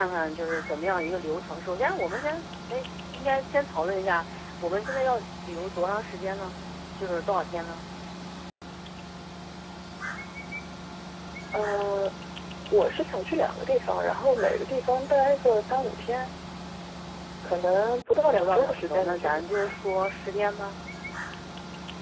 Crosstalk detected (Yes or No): Yes